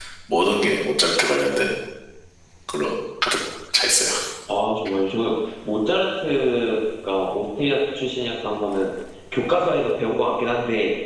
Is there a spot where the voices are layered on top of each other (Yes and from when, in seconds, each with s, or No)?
No